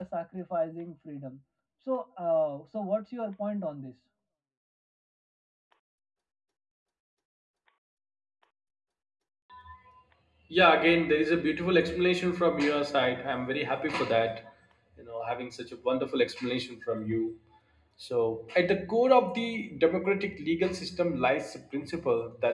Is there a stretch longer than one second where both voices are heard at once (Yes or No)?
No